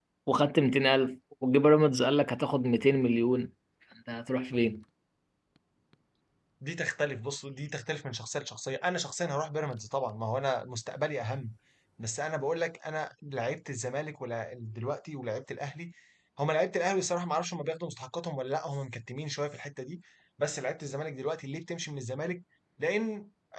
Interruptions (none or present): none